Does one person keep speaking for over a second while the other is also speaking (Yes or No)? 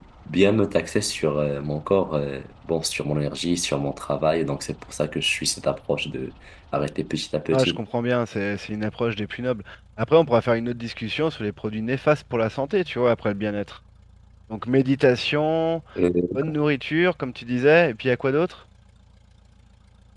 No